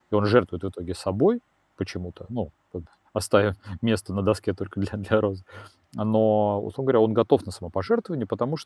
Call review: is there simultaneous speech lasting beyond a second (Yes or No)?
No